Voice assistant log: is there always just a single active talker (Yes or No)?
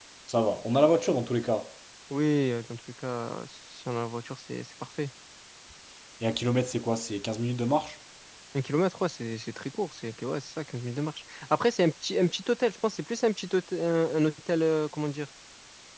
Yes